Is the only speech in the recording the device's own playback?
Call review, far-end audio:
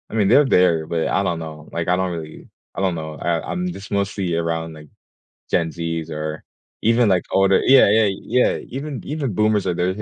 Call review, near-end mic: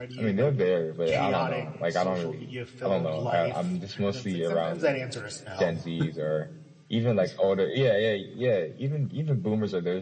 No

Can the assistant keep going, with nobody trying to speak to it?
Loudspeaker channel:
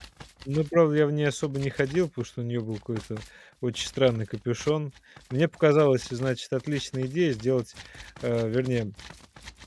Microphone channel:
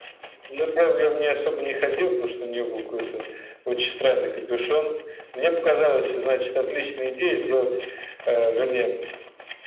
Yes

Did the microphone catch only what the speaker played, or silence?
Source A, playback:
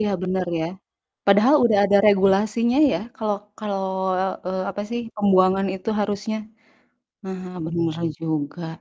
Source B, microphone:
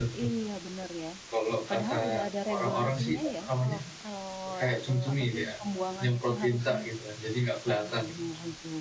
No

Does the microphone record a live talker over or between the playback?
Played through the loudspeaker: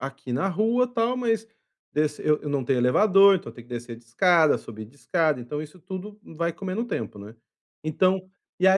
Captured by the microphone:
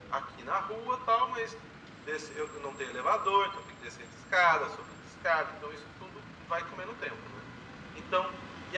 No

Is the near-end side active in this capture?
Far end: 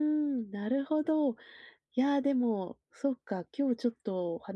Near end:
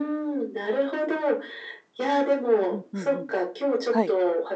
Yes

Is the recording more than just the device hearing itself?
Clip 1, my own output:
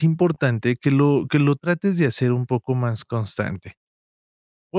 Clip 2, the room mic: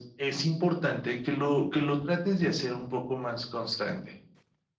No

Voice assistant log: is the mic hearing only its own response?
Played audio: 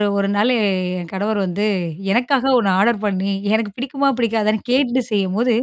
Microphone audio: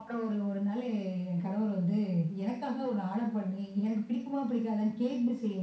Yes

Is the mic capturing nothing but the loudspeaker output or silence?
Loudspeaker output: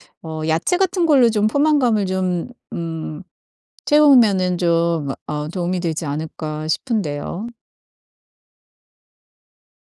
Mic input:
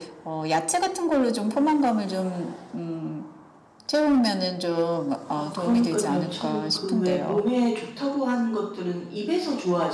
No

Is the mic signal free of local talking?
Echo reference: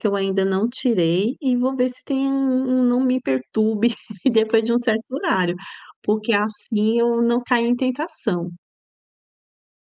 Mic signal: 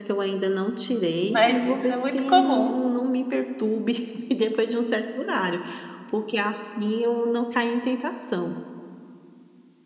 No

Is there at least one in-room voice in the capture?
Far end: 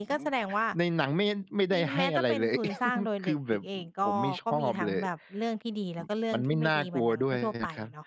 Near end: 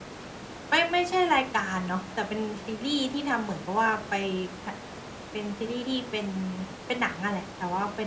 Yes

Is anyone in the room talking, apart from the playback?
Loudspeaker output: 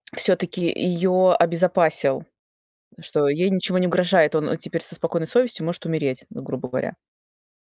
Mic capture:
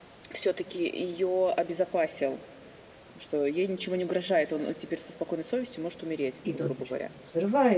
Yes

